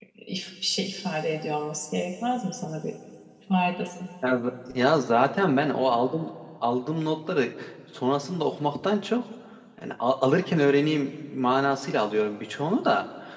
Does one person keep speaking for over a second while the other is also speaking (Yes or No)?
No